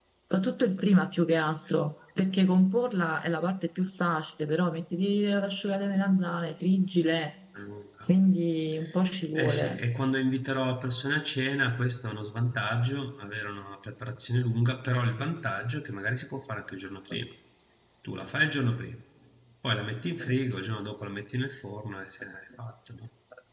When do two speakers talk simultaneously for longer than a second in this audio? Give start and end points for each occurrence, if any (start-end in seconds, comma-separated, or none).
none